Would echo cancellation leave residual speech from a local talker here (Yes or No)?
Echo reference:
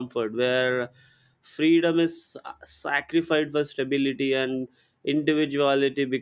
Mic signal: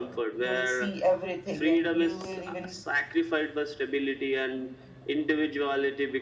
Yes